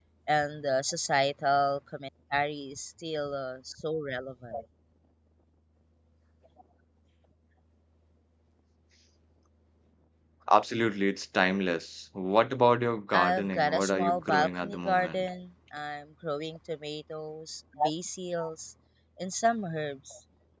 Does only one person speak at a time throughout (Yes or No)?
No